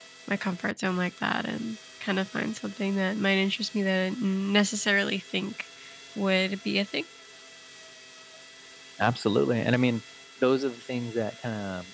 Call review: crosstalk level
none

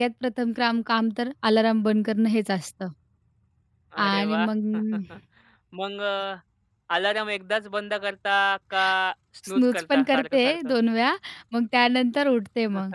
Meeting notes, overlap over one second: present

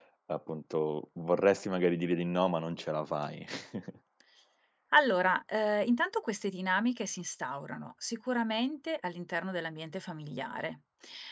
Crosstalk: none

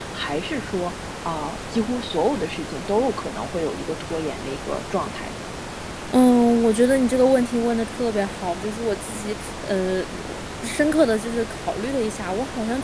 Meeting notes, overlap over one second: none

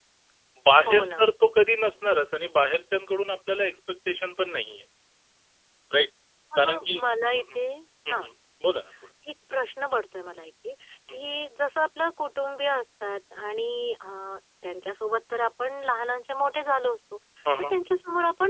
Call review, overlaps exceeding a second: none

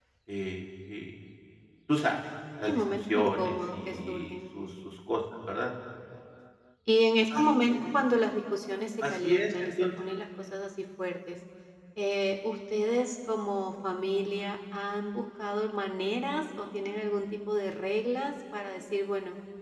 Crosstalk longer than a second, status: present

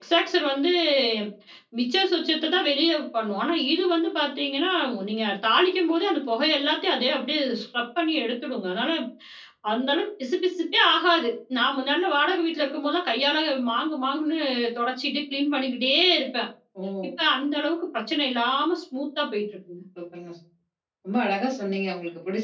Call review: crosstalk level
none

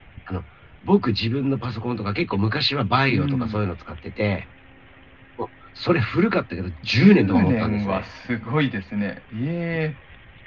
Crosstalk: present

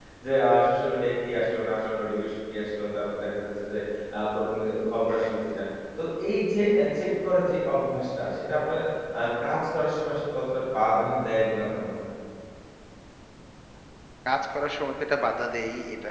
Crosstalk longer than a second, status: none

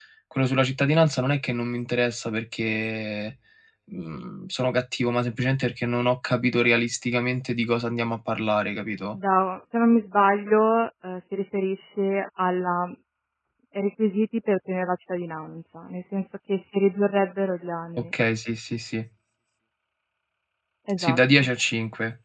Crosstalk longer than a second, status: none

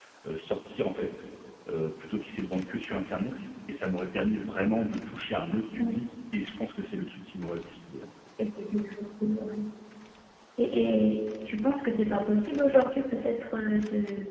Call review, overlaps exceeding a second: none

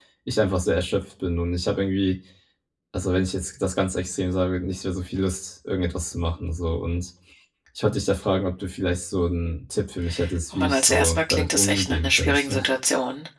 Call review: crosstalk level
present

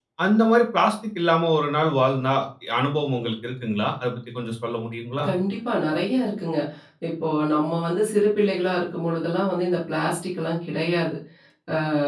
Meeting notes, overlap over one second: none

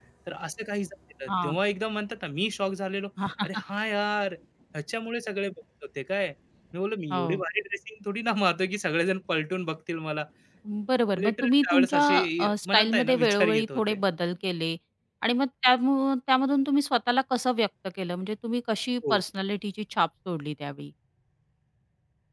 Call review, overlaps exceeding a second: present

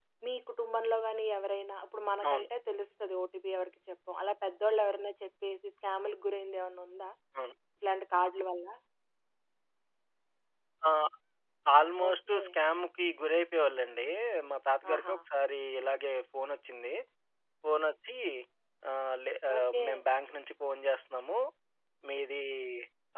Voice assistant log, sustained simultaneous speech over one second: none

